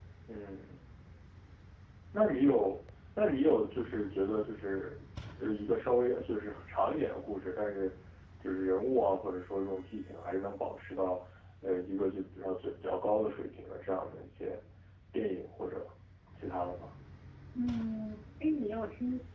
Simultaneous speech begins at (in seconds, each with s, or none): none